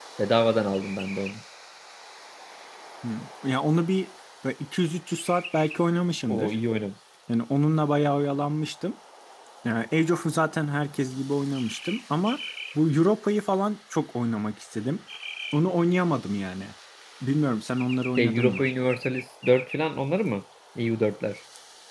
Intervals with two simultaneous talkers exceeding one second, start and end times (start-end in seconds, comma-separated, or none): none